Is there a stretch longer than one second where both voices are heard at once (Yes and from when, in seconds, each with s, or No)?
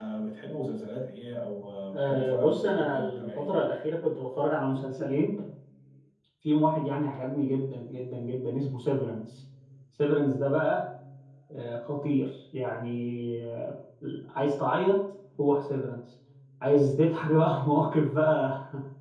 Yes, from 1.9 s